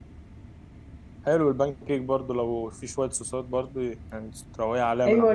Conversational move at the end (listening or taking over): taking over